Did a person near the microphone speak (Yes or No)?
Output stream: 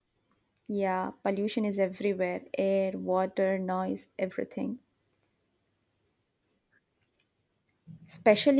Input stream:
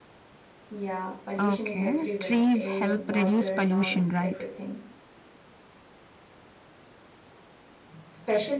Yes